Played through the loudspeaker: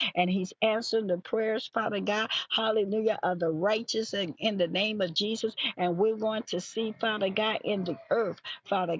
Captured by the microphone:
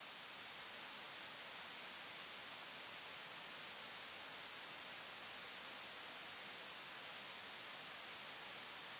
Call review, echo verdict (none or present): none